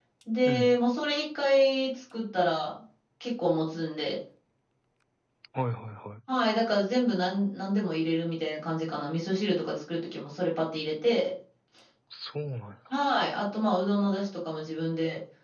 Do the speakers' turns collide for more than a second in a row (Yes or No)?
No